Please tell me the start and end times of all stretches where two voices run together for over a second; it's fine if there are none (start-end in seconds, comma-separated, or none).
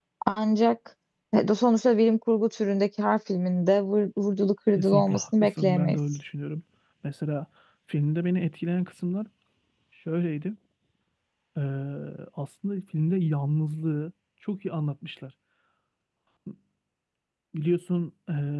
4.8-6.0